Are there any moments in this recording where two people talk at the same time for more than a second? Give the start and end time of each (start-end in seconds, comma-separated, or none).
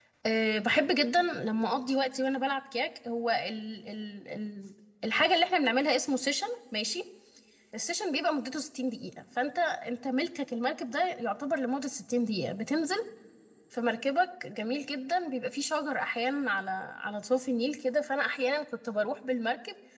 none